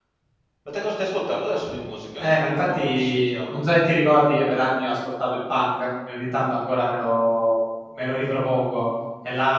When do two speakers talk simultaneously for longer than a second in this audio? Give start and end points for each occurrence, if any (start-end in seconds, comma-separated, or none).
2.2-3.6